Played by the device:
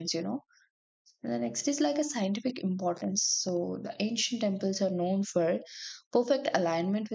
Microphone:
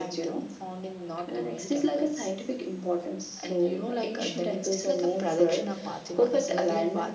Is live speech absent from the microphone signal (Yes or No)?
No